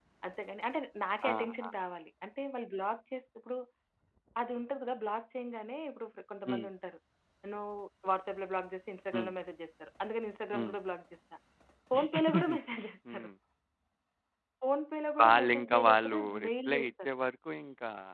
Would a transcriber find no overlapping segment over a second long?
No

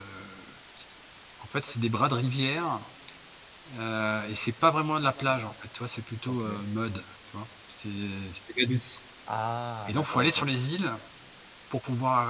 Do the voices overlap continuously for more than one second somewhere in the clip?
No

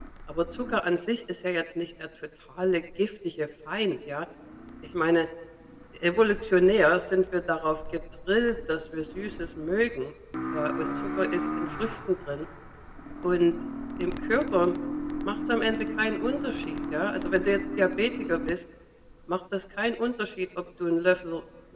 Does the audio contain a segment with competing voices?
No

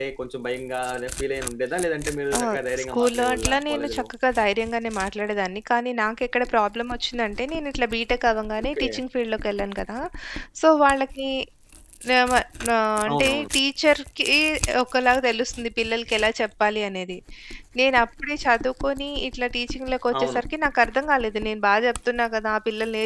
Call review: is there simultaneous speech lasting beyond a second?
Yes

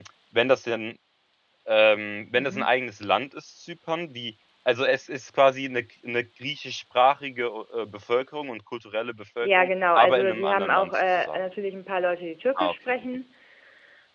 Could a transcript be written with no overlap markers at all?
No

